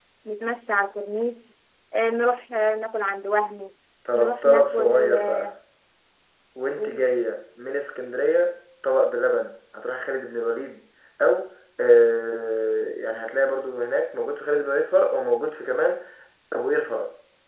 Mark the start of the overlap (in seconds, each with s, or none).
4.1 s